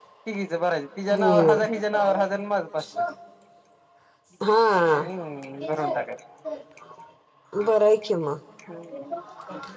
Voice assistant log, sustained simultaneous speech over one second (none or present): none